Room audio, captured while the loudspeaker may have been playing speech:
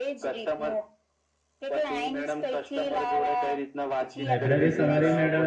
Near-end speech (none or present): present